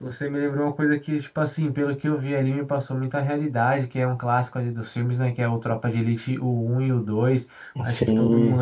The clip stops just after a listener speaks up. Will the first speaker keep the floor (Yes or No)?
Yes